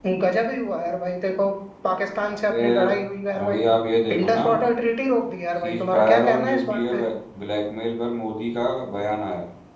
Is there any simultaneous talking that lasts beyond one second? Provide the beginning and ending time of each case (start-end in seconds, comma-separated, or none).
5.6-7.0